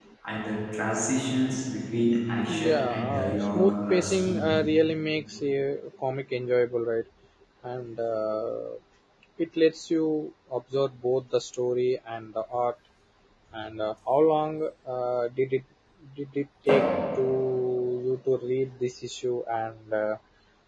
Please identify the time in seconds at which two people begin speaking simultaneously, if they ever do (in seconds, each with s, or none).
2.4 s